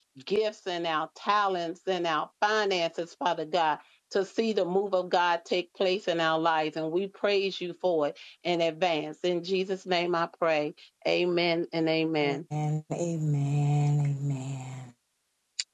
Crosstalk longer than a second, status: none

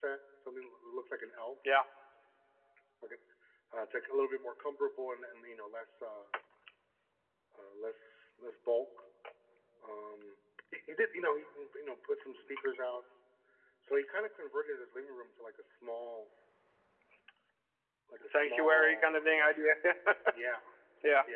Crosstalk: present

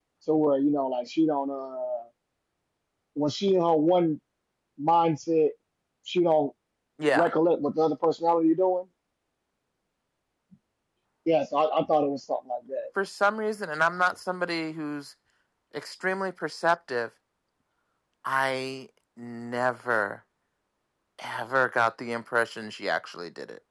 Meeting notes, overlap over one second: none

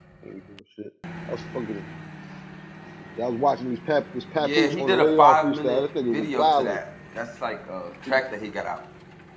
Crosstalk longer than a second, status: present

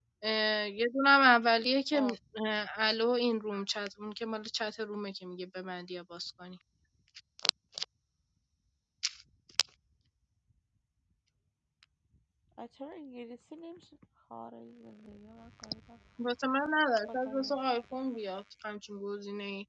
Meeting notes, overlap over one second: none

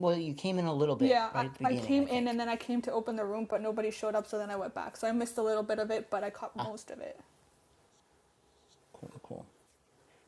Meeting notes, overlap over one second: present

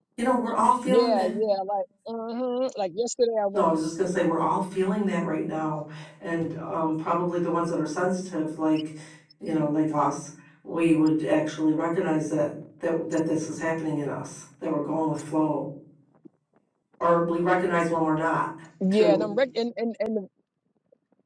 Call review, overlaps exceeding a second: none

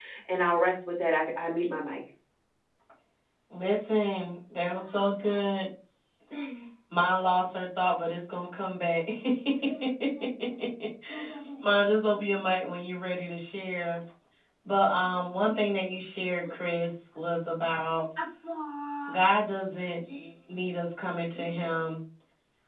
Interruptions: none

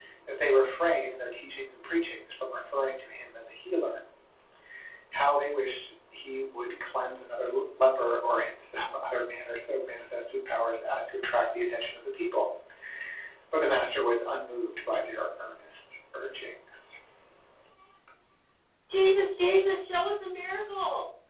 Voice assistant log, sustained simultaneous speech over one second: none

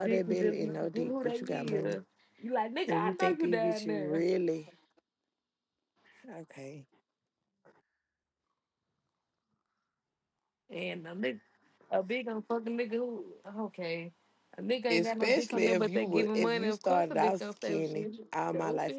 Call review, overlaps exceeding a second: present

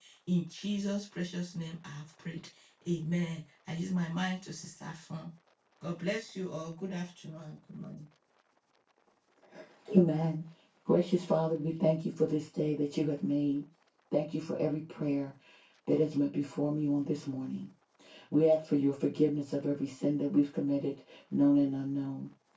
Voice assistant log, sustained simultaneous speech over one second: none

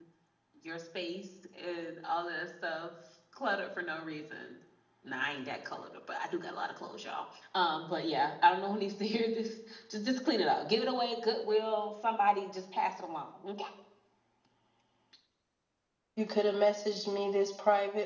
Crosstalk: none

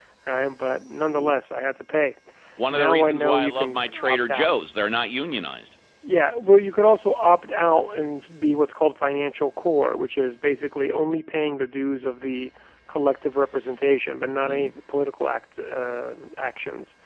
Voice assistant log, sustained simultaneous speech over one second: present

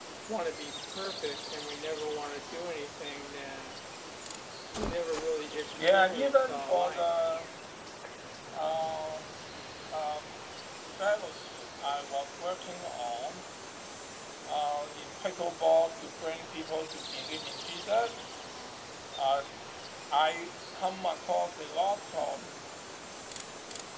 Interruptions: present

